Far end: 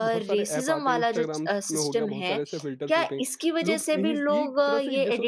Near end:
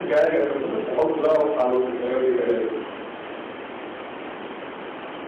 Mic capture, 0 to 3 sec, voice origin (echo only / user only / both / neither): user only